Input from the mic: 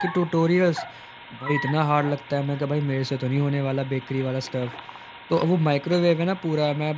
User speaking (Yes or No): Yes